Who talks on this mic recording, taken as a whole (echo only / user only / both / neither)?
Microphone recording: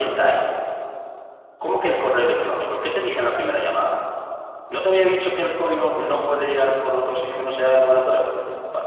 echo only